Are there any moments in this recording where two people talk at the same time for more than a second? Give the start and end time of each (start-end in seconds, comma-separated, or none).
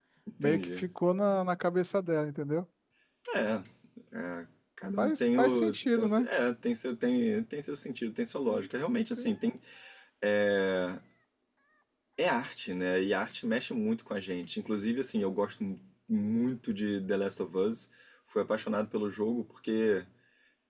5.0-6.3